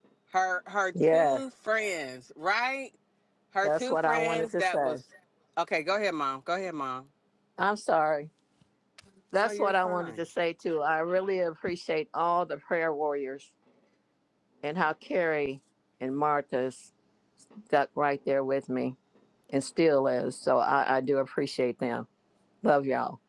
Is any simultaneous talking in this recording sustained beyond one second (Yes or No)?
Yes